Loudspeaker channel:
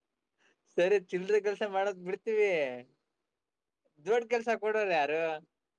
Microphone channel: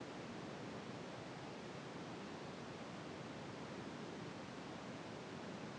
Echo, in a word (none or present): none